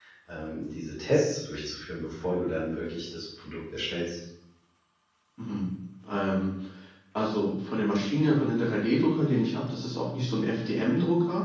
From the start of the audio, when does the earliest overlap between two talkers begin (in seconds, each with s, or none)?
none